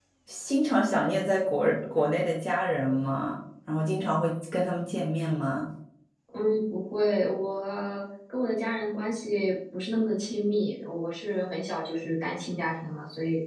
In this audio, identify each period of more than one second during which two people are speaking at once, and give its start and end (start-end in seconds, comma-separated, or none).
none